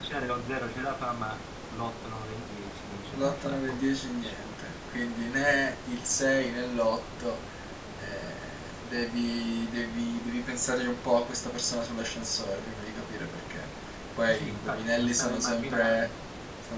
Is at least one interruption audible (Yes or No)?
Yes